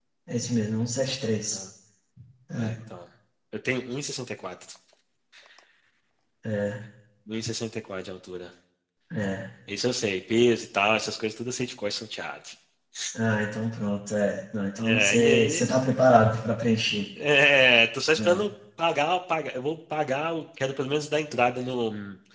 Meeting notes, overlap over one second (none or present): present